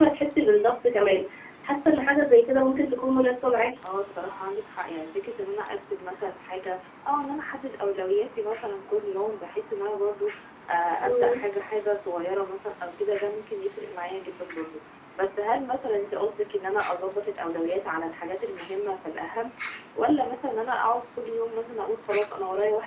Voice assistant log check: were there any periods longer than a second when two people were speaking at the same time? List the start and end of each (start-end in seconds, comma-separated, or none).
none